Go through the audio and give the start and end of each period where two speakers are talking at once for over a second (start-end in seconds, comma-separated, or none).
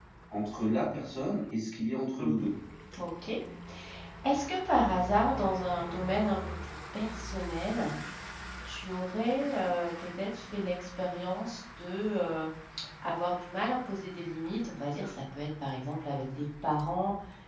none